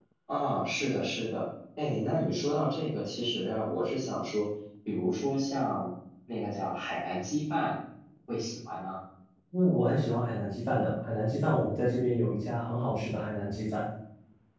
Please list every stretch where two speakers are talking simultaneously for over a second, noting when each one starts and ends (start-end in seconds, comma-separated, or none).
none